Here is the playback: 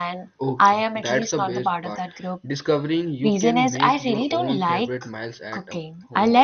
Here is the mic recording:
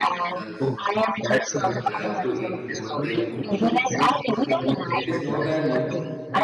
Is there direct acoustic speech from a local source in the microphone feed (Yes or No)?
Yes